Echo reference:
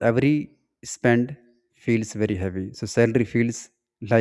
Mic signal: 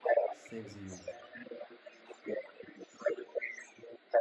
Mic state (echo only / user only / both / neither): both